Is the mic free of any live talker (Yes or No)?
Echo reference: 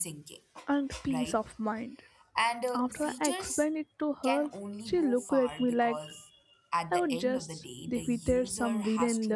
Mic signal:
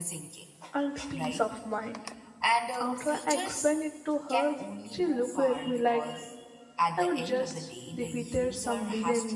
Yes